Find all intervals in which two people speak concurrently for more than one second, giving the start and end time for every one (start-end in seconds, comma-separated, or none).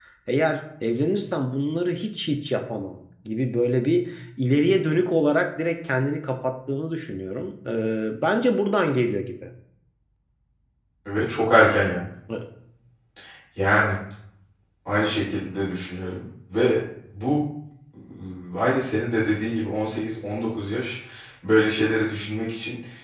none